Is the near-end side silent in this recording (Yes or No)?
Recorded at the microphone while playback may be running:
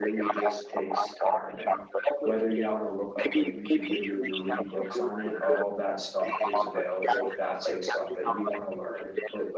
No